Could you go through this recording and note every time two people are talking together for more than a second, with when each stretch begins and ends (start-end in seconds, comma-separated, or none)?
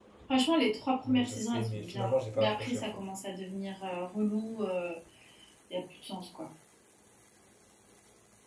1.0-2.8